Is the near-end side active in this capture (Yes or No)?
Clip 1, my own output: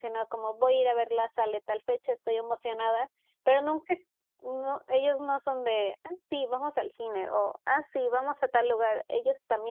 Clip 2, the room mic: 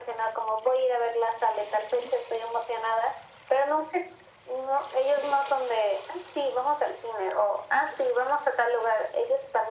No